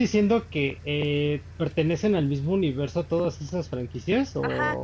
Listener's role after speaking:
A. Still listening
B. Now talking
B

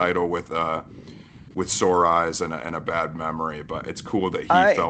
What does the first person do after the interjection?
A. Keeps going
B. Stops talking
A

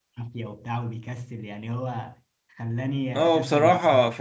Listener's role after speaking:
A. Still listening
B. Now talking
B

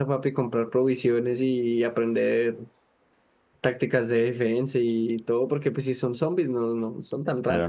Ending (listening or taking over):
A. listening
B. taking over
B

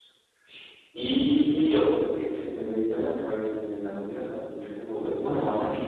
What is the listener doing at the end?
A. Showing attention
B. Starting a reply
B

